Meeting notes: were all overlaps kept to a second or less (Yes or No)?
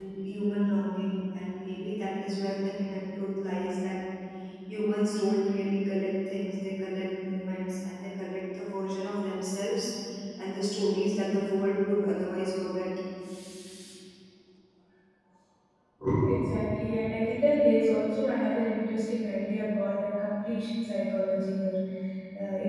Yes